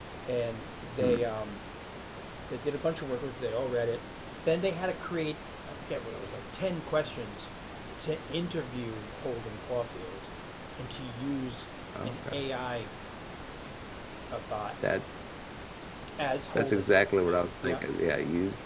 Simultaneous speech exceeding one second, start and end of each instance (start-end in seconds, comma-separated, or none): none